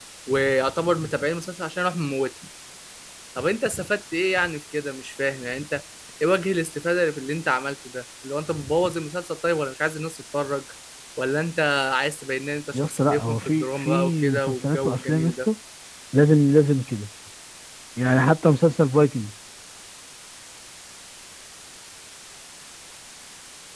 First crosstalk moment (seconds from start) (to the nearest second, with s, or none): 13 s